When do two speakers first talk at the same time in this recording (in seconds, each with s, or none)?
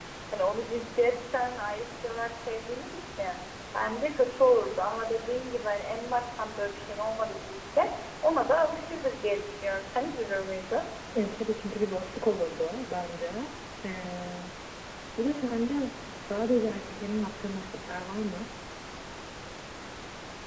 none